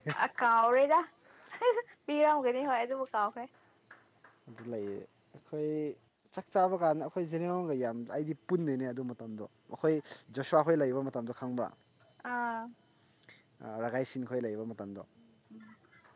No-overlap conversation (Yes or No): Yes